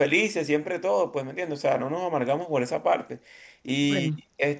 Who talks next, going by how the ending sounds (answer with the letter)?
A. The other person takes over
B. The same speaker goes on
B